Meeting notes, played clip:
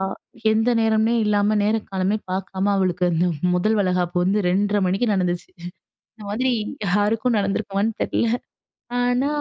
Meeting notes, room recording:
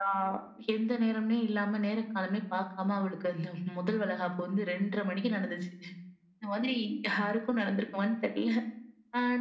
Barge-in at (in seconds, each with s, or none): none